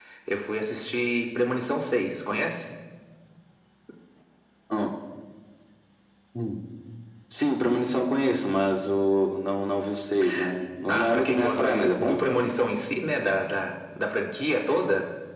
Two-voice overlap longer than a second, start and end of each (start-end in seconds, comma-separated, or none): 10.9-12.2